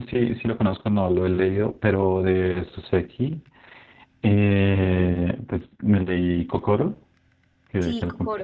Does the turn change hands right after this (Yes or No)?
Yes